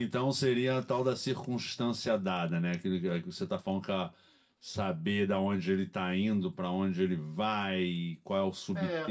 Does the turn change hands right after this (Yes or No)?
Yes